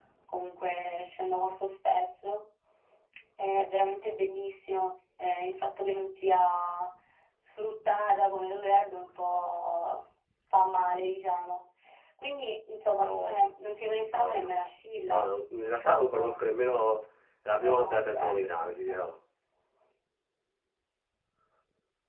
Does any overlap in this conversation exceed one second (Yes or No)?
Yes